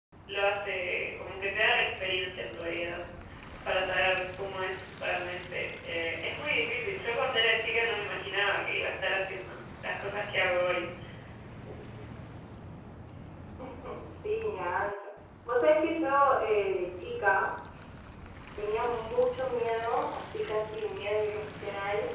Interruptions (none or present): none